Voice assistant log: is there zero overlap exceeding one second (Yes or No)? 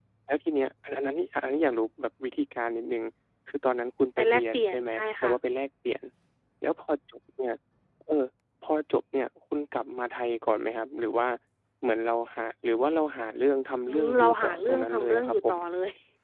No